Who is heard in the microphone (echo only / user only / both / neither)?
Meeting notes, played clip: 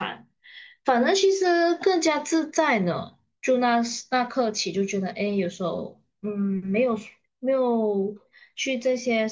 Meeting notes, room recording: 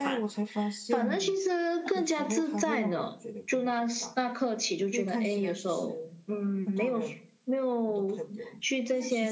both